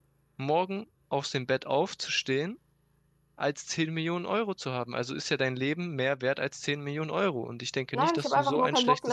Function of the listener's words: taking over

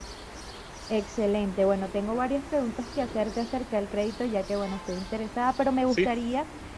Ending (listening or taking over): listening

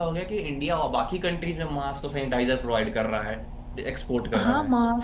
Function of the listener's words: taking over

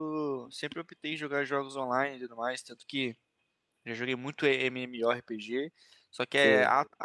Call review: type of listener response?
listening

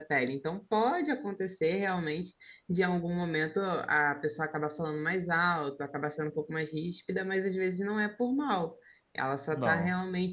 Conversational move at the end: listening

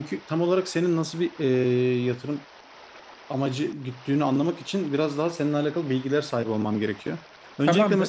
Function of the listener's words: listening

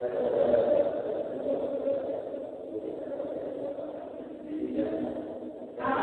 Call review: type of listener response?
taking over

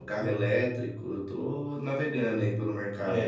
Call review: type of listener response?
taking over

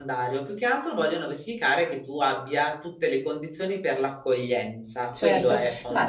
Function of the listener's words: taking over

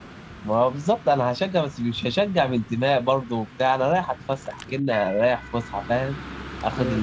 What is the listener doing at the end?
listening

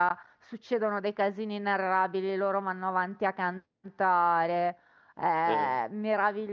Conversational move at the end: listening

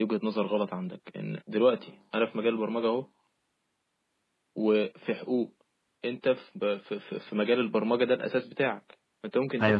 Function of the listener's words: listening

